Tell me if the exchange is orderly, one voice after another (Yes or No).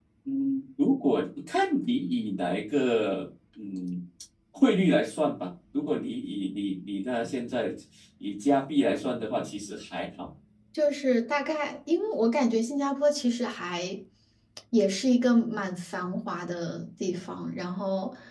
Yes